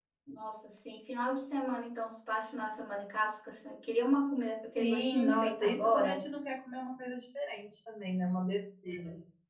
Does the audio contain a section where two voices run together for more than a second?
Yes, from 4.8 s

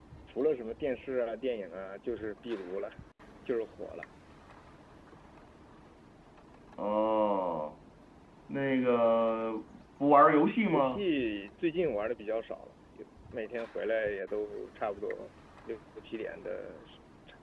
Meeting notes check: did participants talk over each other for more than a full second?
No

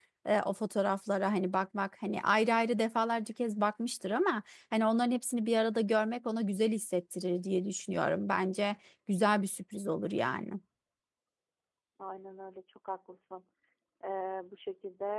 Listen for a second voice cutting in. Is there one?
No

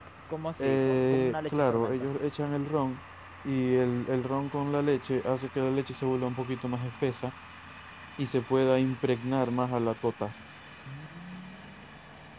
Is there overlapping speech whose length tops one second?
Yes, from 0.6 s

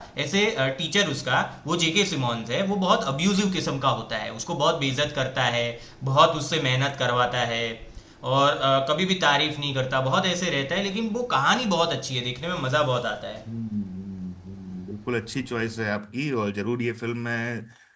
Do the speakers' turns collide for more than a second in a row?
No

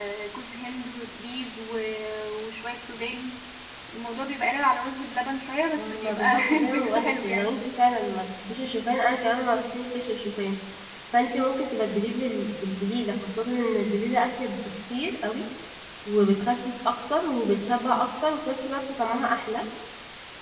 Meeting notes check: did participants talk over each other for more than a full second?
Yes, from 5.8 s

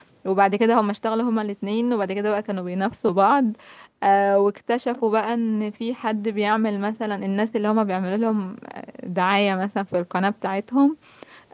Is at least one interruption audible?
No

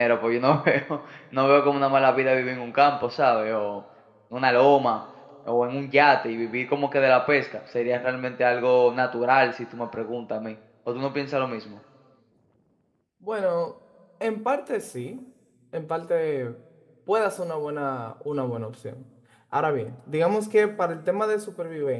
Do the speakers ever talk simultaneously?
No

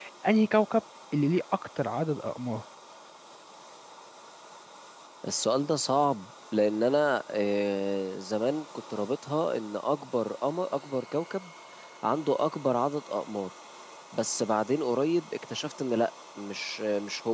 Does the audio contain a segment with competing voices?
No

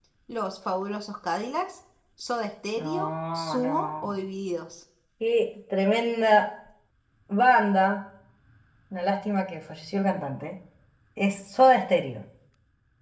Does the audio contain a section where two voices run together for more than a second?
Yes, from 2.8 s

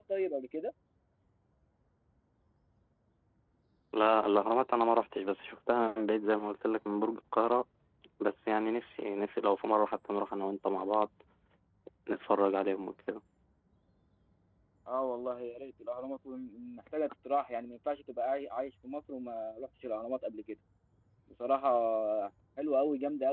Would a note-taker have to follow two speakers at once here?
No

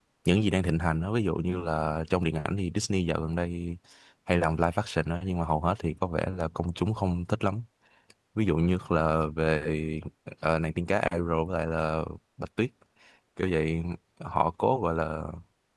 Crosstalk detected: No

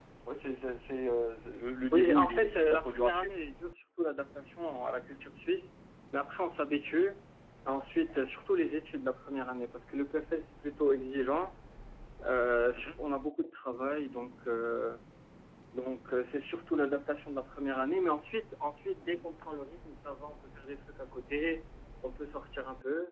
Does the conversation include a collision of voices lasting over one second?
Yes, from 1.9 s

